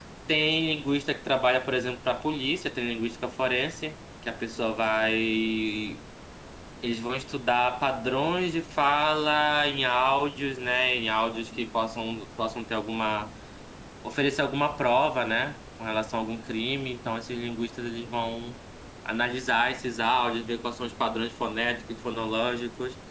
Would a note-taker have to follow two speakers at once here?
No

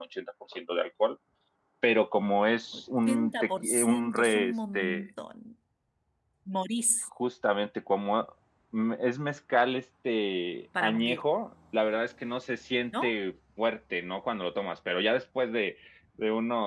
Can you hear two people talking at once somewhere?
Yes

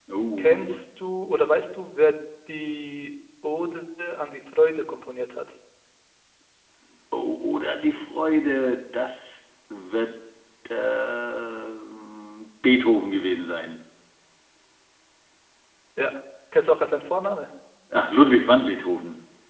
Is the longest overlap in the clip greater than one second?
No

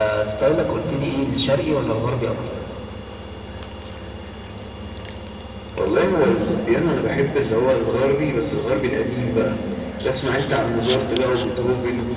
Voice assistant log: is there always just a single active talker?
Yes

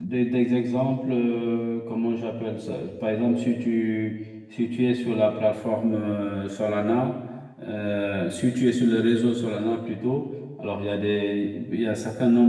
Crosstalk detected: No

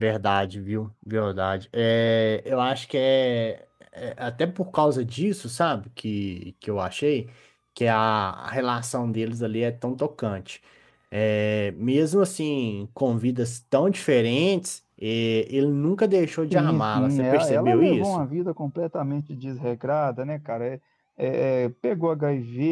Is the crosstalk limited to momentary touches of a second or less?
No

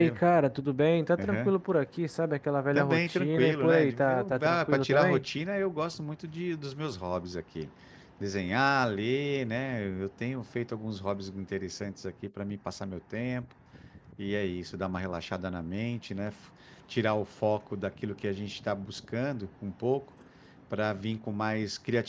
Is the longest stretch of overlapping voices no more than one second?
No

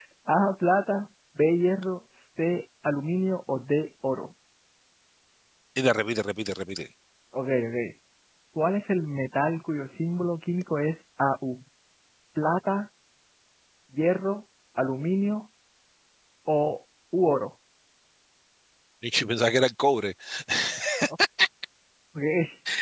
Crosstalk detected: No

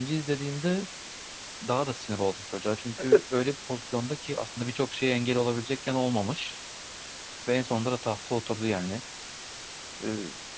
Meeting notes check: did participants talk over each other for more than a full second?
No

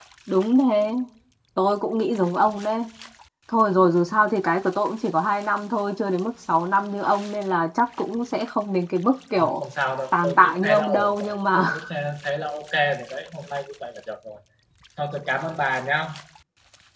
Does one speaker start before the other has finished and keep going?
Yes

